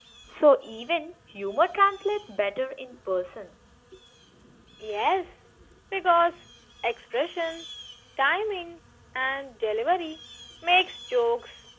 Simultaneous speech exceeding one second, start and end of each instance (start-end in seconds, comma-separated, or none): none